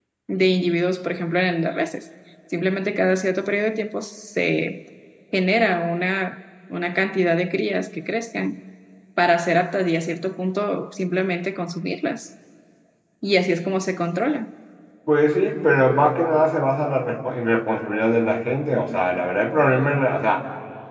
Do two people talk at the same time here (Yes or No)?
No